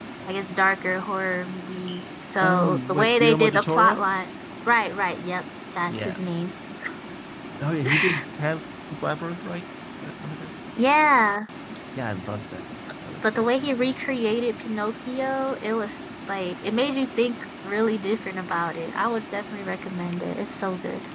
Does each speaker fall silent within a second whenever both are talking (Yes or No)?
No